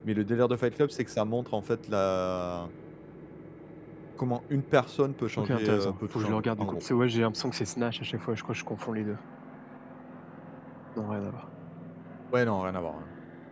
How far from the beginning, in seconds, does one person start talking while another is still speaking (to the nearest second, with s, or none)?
5 s